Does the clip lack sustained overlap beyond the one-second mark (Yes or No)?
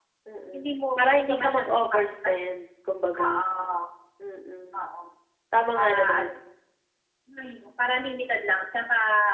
No